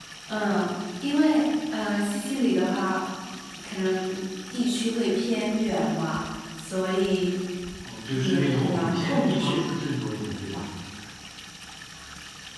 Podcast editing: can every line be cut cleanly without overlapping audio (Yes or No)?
No